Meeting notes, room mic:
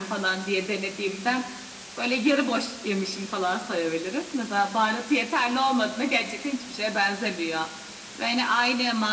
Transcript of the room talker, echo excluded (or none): none